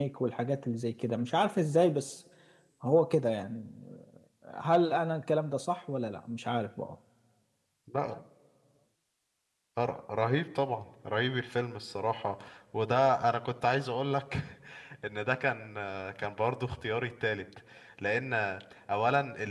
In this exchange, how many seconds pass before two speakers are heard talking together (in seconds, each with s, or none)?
none